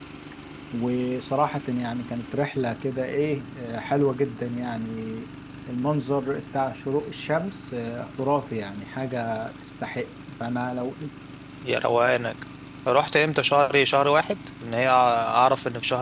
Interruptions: none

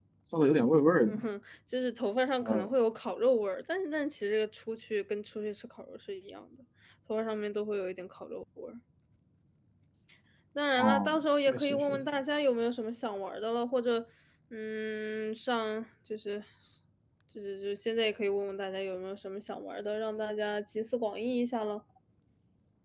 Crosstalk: present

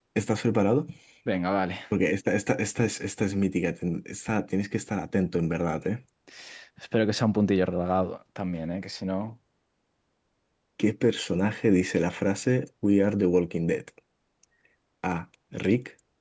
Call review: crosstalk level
none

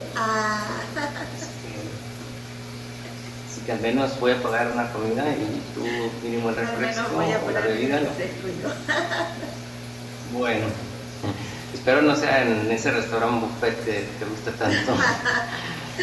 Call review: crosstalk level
present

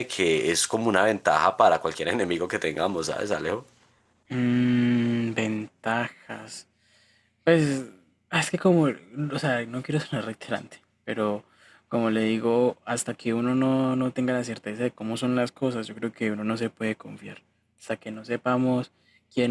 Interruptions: none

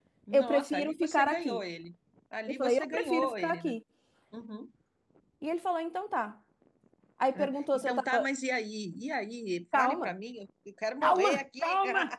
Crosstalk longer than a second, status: present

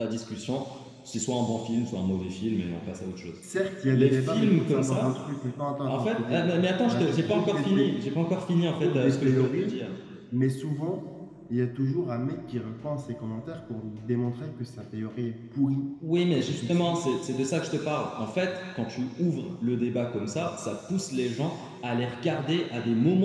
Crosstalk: present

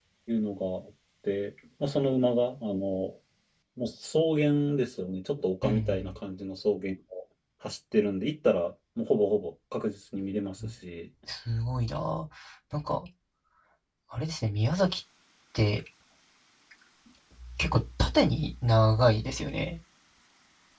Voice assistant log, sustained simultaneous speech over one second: none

